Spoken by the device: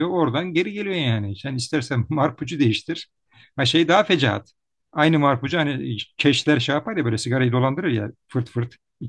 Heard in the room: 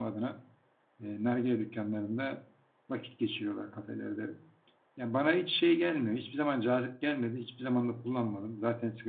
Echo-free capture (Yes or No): Yes